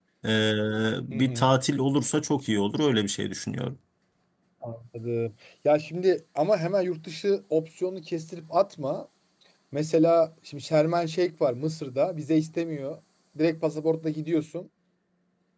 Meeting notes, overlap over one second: none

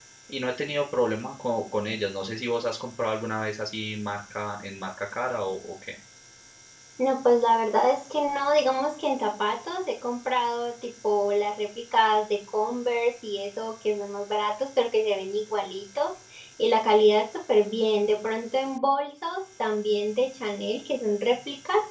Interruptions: none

